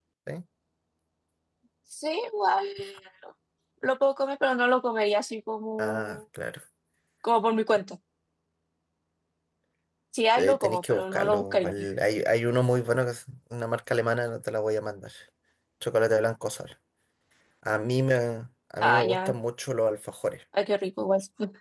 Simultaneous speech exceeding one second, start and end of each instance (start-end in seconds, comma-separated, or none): 10.4-11.7